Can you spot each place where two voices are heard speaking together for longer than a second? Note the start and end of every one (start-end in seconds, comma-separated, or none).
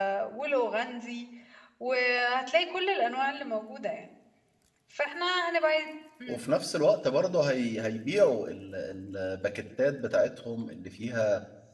none